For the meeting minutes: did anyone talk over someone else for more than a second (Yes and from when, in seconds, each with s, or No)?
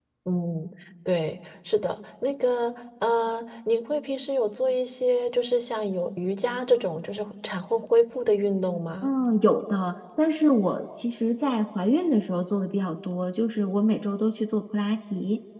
No